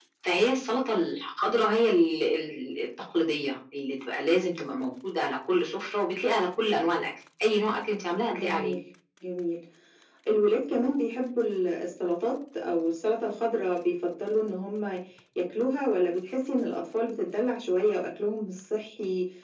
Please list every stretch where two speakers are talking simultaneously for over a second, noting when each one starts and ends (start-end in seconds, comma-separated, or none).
none